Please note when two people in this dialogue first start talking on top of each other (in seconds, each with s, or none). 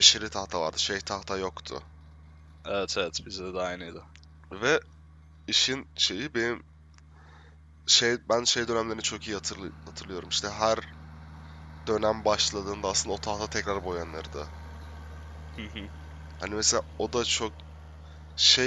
none